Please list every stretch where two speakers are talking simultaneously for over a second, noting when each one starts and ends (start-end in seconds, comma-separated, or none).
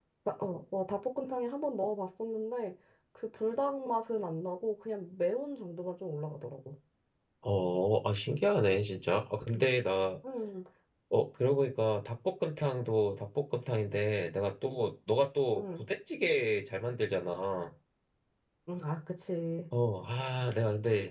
none